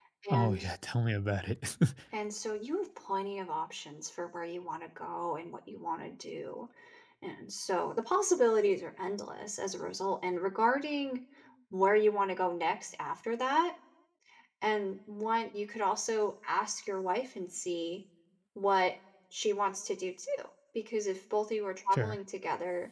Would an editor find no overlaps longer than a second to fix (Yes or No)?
Yes